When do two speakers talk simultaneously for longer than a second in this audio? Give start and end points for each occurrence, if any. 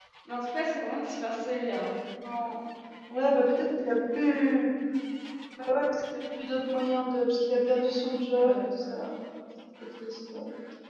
none

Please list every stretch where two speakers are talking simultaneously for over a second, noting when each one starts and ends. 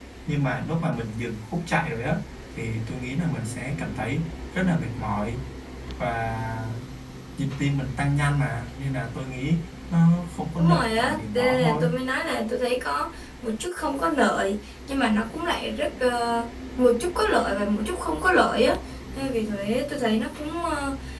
10.6-11.8

